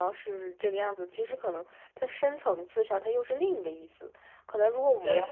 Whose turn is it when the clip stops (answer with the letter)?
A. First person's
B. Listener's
A